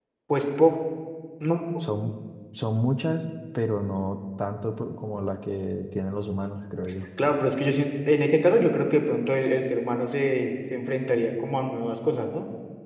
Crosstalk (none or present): none